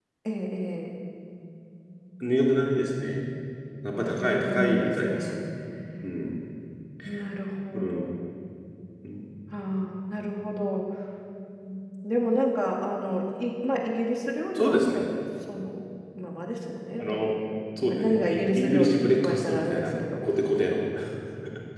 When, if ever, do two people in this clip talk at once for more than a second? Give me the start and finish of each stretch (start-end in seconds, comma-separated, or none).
4.0-5.4, 17.8-20.1